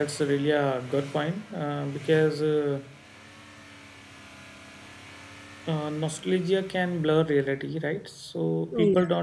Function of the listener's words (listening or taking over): listening